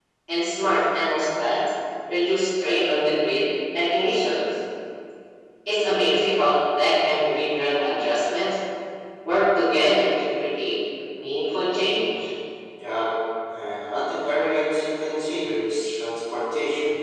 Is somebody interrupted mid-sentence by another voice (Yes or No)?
No